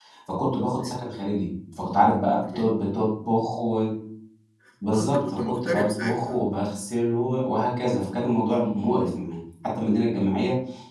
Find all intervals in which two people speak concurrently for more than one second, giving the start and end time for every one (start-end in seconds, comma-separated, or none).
4.9-6.4